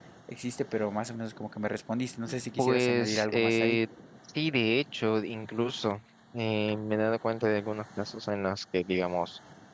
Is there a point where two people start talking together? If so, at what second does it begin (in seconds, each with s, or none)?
2.6 s